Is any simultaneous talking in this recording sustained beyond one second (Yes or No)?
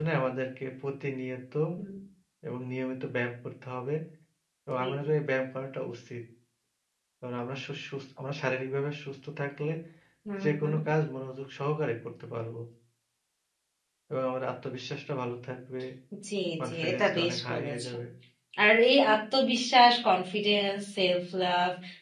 Yes